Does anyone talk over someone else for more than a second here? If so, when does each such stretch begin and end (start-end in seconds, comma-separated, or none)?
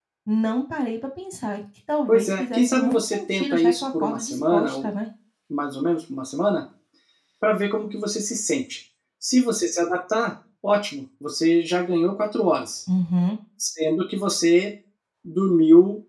2.1-4.9